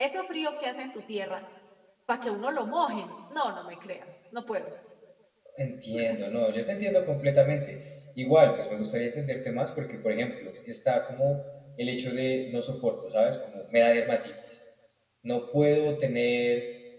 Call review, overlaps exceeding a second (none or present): none